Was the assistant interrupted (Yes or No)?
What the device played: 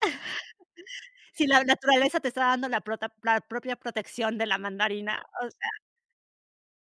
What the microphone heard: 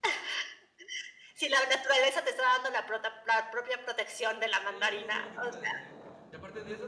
Yes